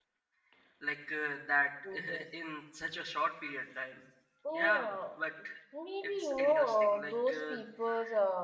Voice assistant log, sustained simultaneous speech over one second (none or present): present